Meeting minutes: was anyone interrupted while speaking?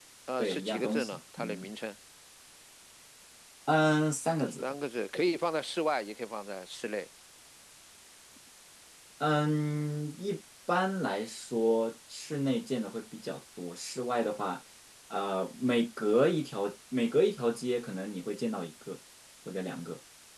Yes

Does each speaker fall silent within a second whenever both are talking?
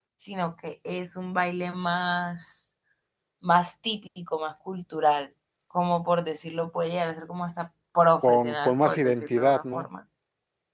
No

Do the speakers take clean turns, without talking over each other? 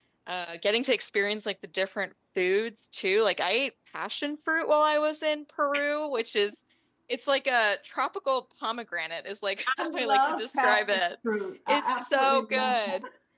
No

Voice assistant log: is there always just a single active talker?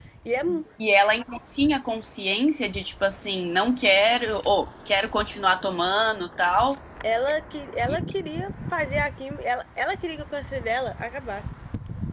Yes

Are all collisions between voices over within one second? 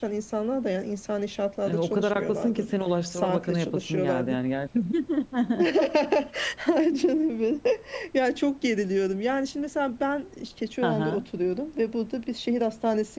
No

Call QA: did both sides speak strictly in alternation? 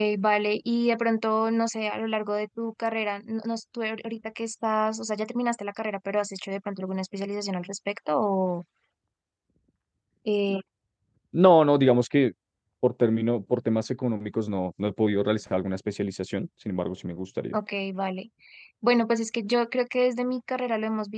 Yes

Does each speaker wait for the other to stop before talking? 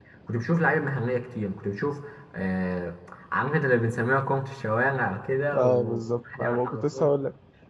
No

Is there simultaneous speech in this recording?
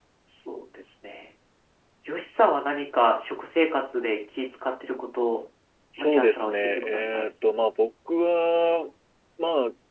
Yes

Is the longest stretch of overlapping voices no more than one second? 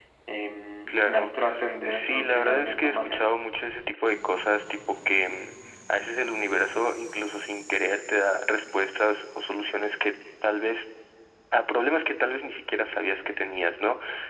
No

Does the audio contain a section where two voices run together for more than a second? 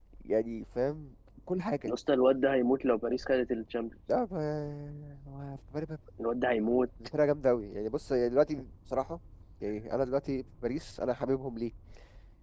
No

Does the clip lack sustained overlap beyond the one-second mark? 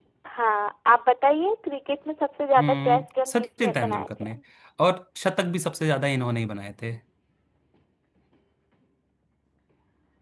No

